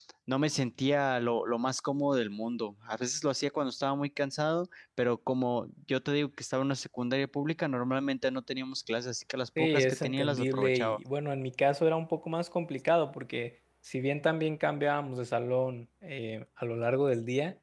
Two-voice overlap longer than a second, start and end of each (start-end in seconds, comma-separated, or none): 9.6-11.0